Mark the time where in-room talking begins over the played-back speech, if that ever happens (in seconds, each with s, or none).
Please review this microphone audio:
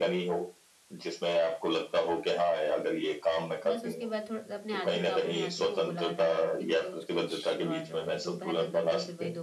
3.7 s